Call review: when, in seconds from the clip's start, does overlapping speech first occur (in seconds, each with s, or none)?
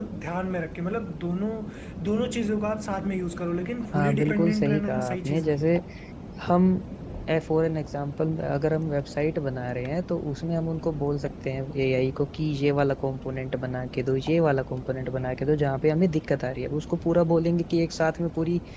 3.9 s